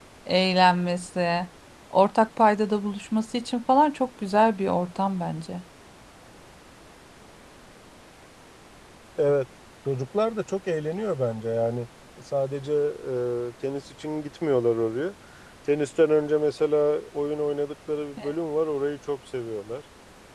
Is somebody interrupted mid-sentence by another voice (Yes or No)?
No